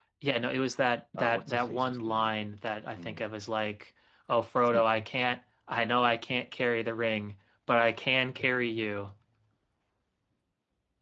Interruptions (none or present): present